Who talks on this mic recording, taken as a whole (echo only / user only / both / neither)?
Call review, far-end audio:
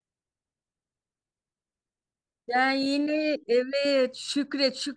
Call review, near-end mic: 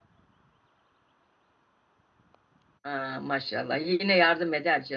user only